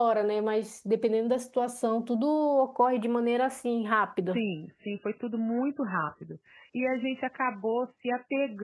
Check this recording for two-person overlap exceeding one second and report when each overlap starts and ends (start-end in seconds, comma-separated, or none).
none